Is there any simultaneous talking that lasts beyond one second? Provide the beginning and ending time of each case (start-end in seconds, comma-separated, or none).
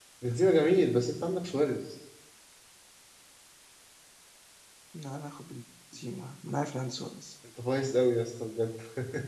none